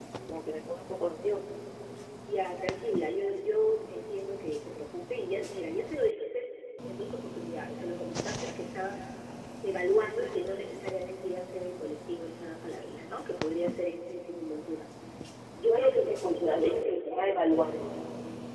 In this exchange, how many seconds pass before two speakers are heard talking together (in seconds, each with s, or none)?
15.6 s